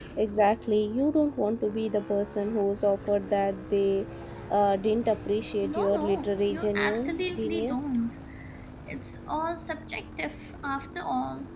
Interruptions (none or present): present